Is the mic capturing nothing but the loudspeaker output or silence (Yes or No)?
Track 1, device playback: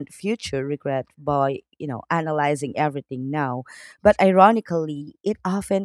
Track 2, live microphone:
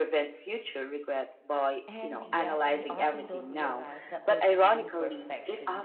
No